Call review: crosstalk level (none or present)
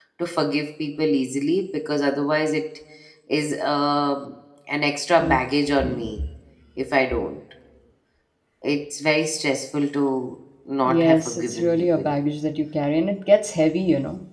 present